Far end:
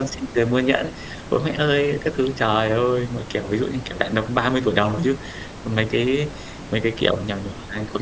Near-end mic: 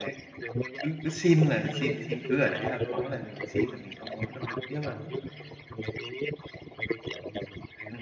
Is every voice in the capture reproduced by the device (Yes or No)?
No